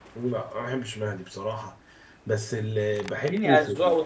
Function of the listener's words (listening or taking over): taking over